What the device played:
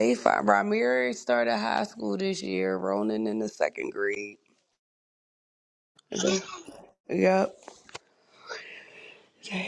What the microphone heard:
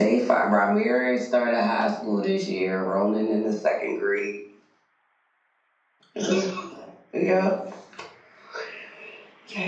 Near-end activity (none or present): none